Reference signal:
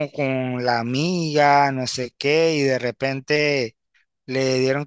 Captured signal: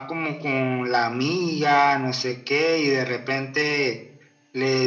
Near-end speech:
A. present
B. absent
B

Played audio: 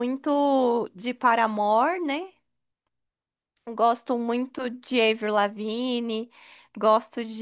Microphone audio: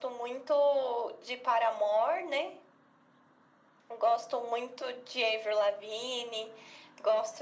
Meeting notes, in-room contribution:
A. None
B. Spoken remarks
A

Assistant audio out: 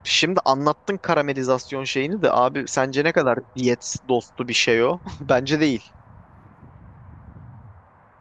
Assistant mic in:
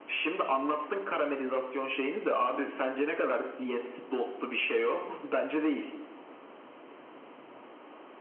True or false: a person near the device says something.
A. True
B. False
B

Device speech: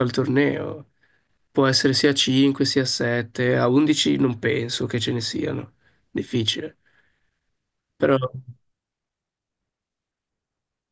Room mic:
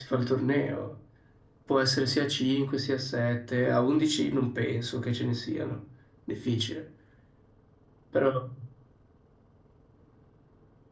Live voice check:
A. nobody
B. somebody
A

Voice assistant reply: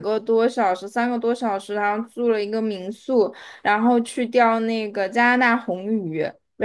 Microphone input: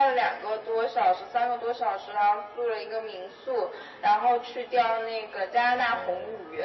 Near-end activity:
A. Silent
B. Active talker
B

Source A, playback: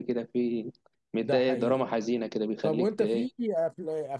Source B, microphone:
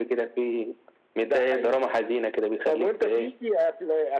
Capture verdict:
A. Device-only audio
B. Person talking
A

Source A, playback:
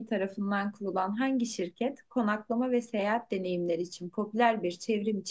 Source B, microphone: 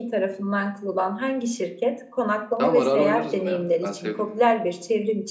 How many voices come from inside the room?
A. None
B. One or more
B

